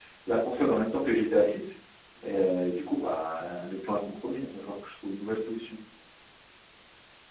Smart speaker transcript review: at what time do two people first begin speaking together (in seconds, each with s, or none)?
none